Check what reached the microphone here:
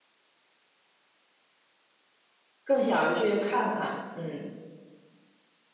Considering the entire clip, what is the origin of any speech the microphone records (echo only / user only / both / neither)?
user only